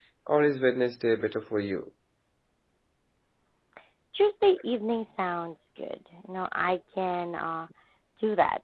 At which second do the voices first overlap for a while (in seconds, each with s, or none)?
none